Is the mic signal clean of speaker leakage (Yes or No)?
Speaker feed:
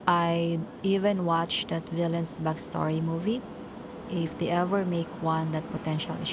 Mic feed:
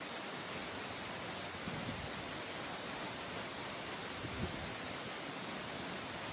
Yes